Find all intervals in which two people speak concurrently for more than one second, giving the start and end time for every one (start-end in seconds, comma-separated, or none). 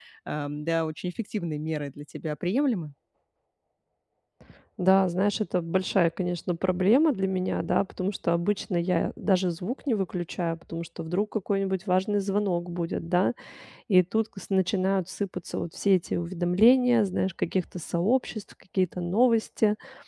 none